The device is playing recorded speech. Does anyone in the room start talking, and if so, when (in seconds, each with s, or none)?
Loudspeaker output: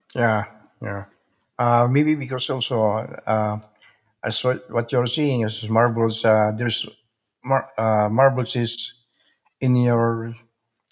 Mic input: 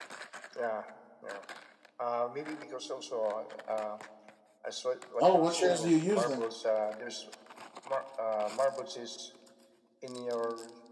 5.2 s